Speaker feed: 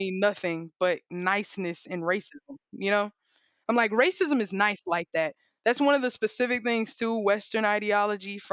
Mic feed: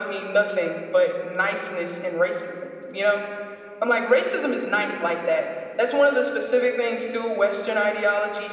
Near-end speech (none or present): none